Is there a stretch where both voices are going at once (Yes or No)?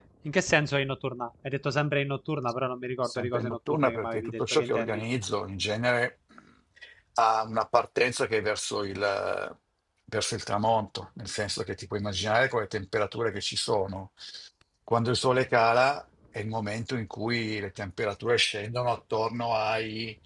Yes